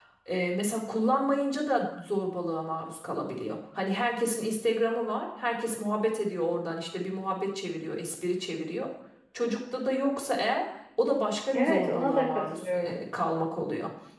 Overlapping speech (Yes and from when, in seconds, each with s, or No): Yes, from 11.5 s